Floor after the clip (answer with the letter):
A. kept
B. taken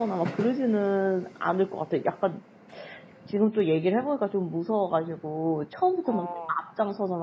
A